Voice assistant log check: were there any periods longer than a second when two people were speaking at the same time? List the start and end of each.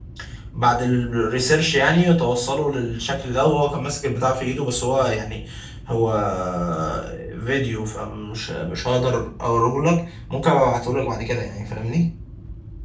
none

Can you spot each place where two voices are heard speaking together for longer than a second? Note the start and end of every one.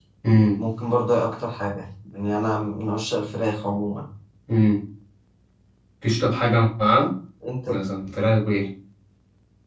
none

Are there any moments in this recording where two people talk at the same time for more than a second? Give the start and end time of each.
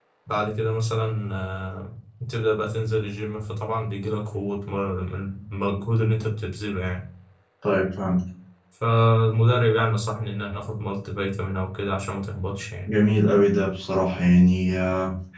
none

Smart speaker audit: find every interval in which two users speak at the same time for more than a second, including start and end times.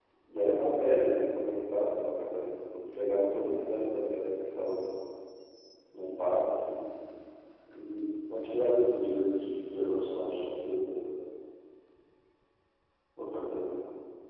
none

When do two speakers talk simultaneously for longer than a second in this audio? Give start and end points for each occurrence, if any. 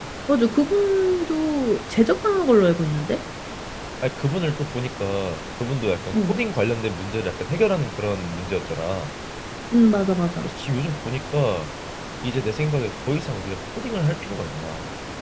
none

